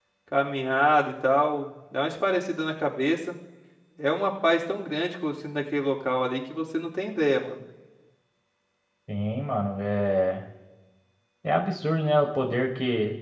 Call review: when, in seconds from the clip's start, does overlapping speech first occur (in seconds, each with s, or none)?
none